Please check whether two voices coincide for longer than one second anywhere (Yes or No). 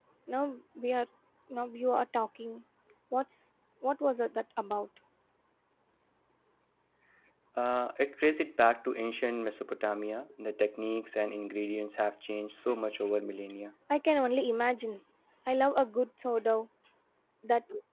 No